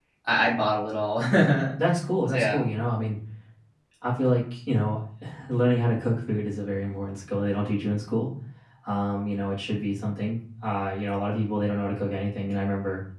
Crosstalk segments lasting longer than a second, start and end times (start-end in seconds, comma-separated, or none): none